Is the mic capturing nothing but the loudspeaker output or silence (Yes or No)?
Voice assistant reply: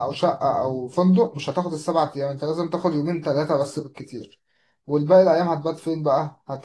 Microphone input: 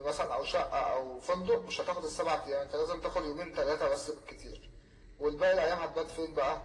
Yes